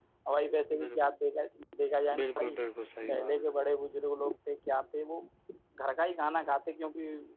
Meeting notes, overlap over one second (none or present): none